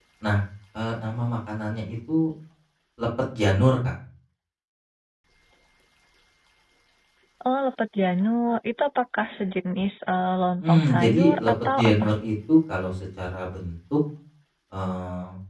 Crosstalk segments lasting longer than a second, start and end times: 10.6-12.0

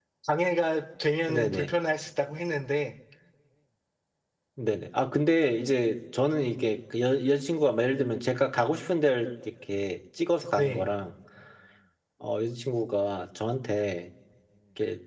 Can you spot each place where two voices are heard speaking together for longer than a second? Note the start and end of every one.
none

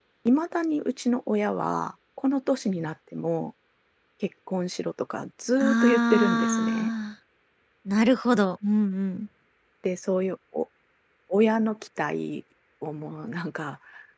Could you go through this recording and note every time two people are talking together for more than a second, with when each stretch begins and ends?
5.6-6.9

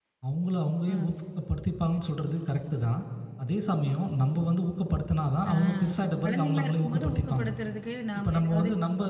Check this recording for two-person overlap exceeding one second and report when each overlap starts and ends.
6.2-7.5

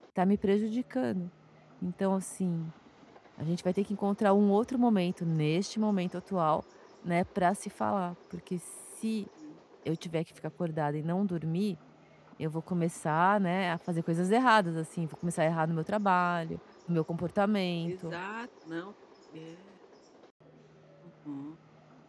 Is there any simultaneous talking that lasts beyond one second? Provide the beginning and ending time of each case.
none

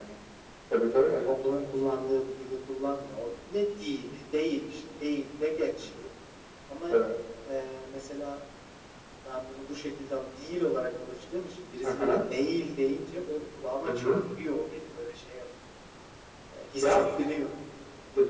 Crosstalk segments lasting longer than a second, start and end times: none

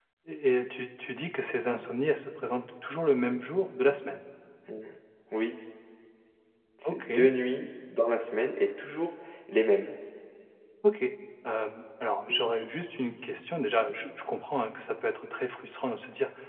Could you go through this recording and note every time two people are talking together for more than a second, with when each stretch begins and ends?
none

